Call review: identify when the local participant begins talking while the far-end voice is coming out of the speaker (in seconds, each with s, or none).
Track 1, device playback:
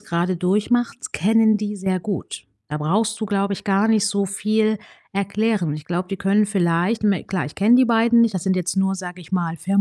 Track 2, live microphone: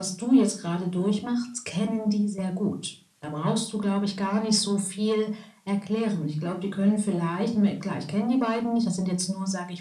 none